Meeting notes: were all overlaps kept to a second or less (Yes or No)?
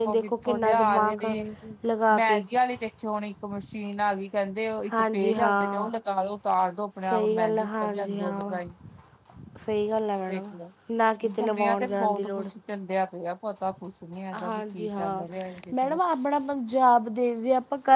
No